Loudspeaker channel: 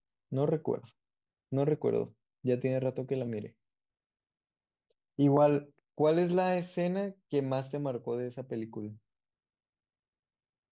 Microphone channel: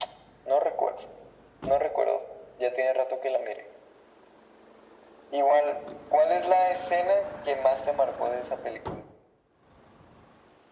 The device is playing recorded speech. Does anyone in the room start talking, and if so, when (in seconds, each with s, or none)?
none